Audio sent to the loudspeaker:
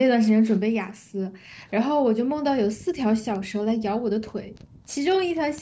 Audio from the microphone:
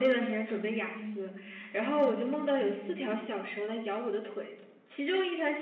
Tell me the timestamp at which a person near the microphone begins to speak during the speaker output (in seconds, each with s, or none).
0.6 s